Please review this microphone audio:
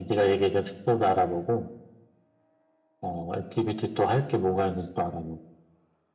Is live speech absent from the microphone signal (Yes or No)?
Yes